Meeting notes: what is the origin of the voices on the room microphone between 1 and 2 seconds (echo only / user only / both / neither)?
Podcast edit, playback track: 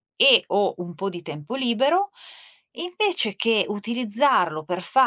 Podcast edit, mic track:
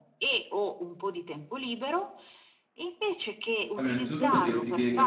echo only